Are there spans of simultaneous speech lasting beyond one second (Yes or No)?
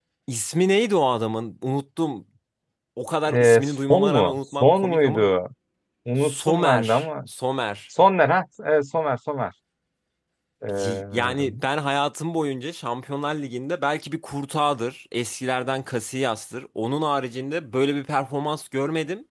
Yes